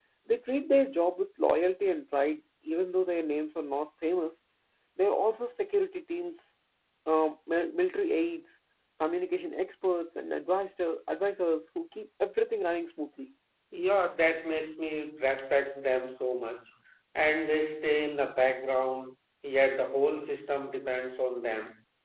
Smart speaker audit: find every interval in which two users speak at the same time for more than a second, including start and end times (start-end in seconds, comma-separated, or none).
none